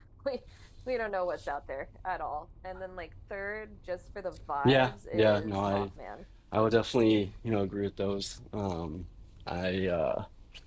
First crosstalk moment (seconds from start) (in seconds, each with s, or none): 4.6 s